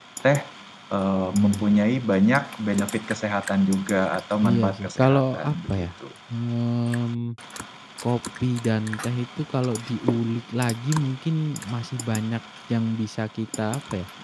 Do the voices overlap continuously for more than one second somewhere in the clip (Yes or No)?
Yes